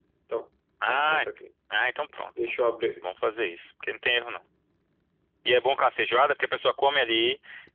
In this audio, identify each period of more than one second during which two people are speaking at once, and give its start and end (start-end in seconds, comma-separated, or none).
none